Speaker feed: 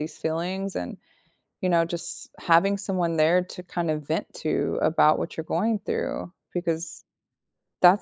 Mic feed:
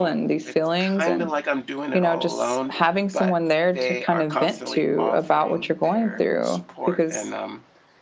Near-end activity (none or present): present